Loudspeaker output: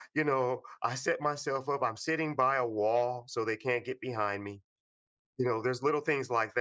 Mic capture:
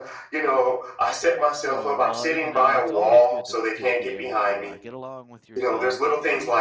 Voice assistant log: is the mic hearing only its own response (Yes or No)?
No